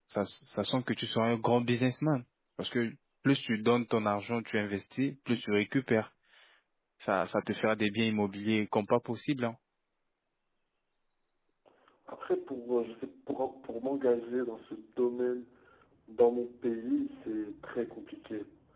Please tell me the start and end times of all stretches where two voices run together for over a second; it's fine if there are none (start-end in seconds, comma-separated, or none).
none